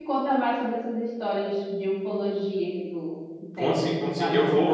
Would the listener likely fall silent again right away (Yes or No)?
No